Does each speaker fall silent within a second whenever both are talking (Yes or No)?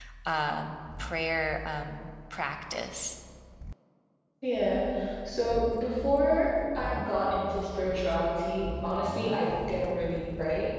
Yes